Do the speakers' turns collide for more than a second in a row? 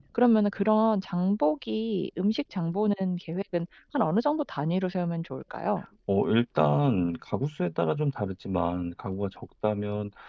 No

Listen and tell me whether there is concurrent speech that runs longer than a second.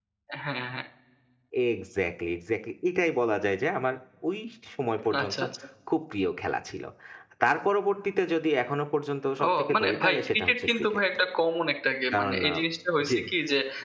Yes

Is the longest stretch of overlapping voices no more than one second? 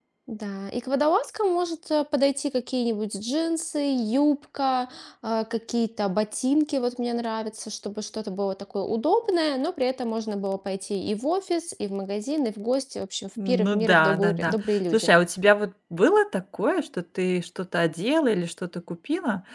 No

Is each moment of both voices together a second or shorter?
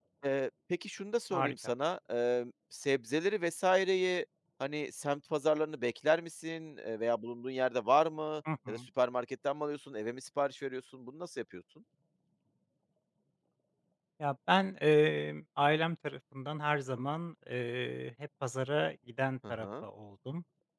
Yes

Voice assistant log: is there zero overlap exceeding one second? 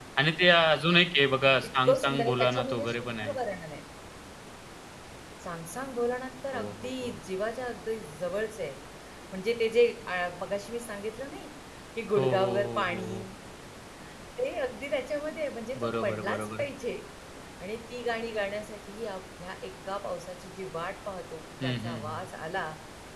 No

